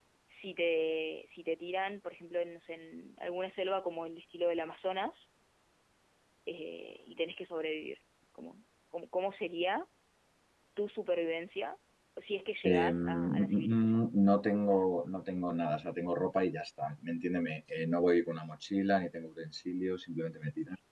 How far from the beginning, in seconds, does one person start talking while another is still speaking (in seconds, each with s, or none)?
12.7 s